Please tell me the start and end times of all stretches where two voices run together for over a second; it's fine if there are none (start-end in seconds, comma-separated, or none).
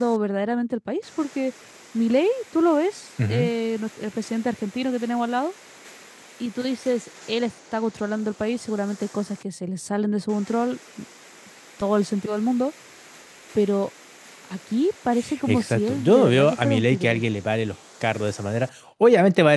15.5-17.2